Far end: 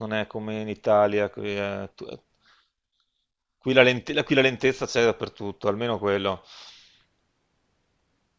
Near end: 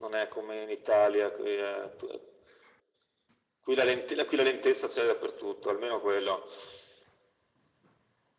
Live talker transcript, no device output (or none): none